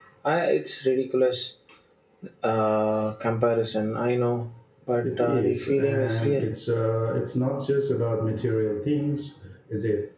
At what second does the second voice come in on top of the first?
5.0 s

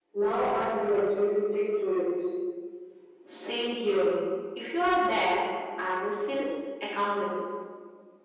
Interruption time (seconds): none

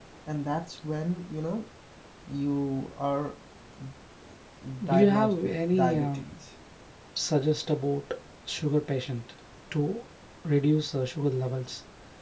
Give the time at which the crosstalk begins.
4.9 s

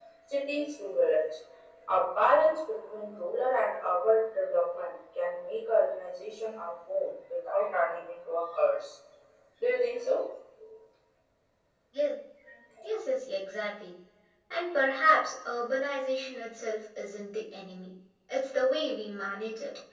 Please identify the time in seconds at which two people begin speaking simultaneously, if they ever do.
none

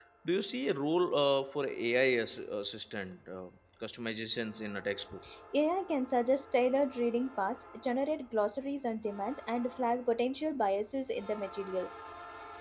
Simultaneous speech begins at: none

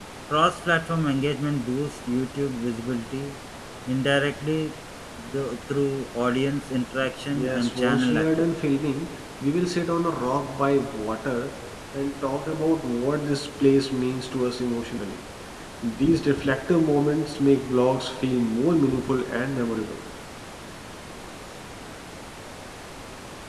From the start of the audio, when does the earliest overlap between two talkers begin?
7.3 s

